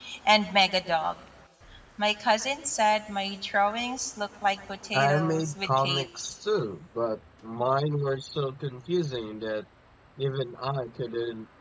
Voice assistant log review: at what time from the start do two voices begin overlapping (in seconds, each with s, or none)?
4.9 s